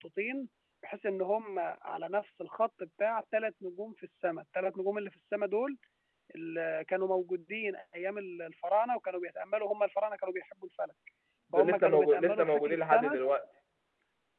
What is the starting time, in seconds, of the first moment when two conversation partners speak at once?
11.5 s

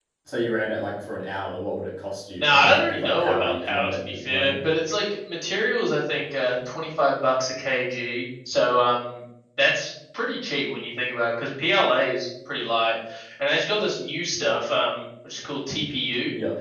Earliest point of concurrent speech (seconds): 2.4 s

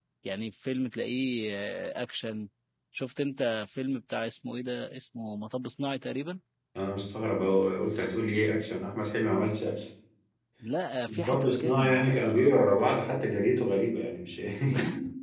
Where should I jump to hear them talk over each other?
11.1 s

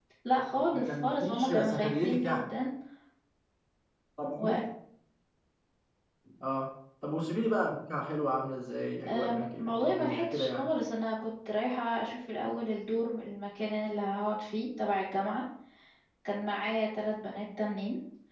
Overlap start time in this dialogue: 0.7 s

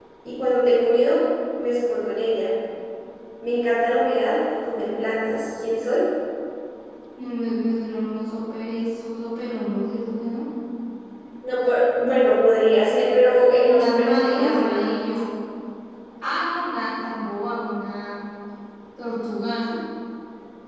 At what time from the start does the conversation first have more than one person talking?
13.6 s

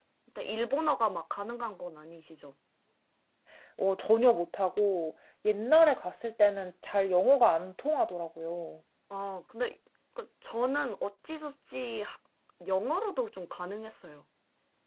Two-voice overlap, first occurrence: none

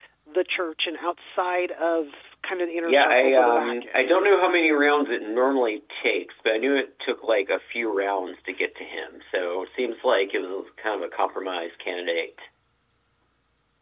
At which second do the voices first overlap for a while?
2.8 s

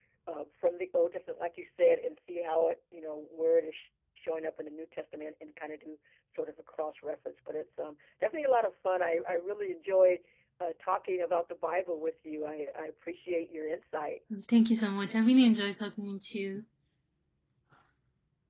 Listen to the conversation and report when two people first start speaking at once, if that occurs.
none

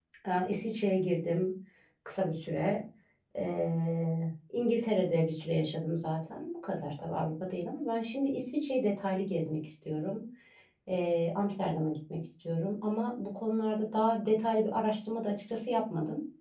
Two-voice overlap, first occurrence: none

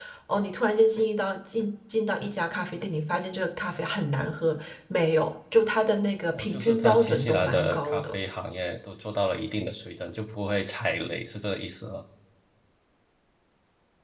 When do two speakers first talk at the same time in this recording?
6.3 s

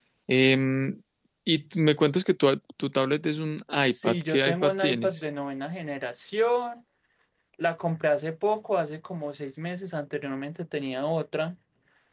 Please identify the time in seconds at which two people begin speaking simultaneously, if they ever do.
3.8 s

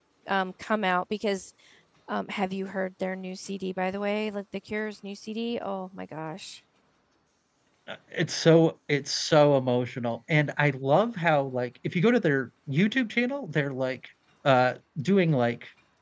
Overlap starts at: none

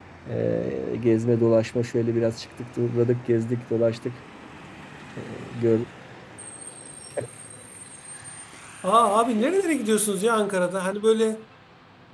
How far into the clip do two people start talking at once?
none

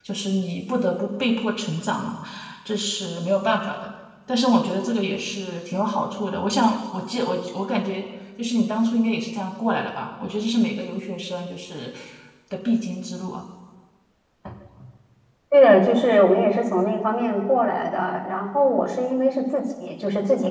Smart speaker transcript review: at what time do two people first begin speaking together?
none

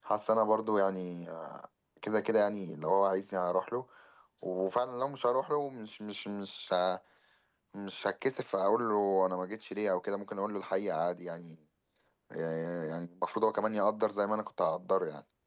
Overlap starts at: none

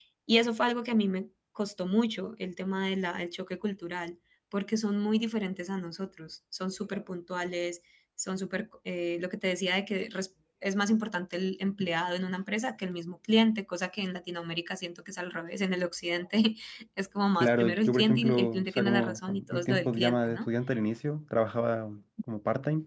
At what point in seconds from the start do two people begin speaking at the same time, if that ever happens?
17.4 s

